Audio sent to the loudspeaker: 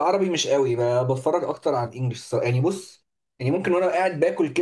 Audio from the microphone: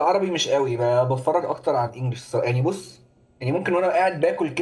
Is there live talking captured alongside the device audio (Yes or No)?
No